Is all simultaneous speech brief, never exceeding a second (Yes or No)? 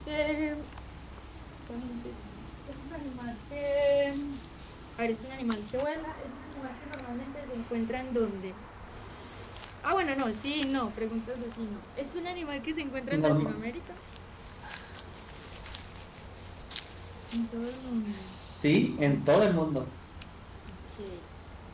Yes